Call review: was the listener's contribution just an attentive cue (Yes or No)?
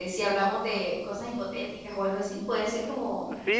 No